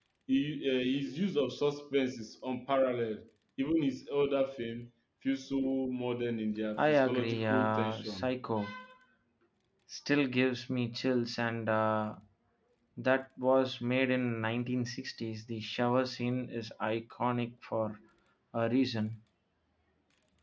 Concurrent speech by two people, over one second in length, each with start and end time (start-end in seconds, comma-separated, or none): 6.8-8.3